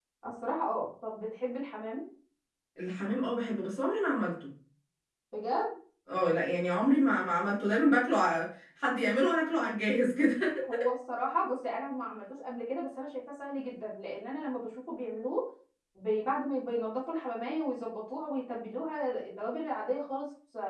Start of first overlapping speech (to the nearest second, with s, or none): none